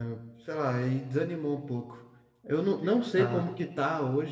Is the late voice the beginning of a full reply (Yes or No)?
No